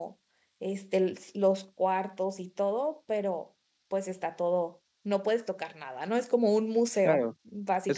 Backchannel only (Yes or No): No